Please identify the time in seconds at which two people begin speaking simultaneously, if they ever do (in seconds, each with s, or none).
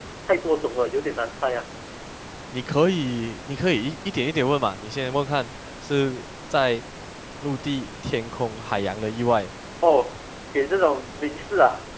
none